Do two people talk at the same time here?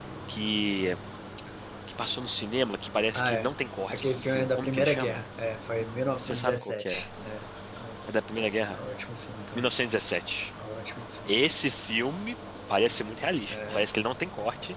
Yes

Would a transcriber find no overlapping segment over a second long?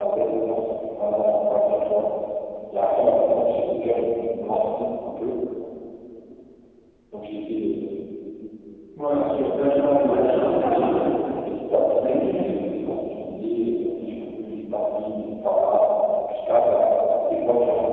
No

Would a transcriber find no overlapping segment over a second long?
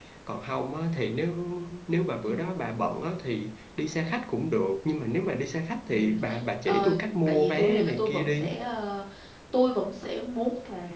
No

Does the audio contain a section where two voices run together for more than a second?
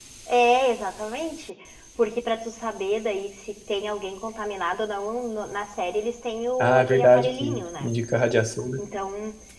Yes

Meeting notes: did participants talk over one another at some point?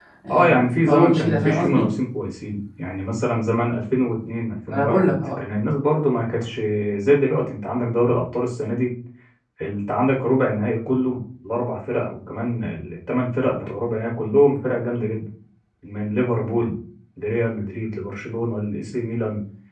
Yes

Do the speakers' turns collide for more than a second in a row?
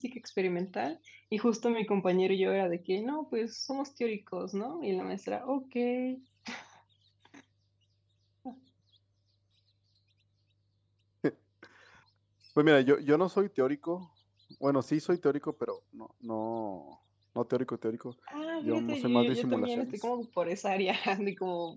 Yes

